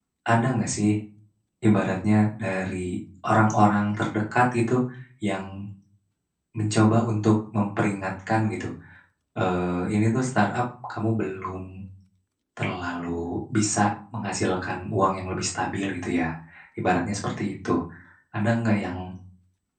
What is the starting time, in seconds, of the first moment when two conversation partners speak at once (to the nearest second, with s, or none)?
none